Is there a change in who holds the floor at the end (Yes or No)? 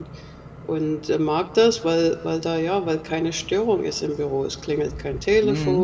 No